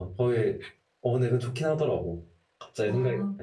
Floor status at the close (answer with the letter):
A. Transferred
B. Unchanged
A